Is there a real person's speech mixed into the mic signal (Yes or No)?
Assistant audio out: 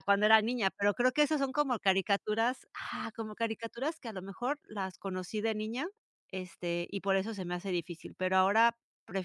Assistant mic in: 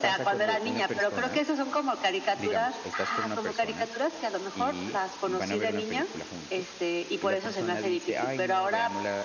Yes